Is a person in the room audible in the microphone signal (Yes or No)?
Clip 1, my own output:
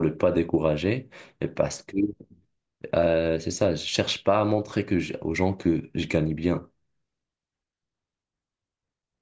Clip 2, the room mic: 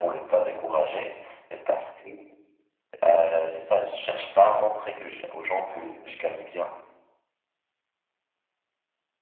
No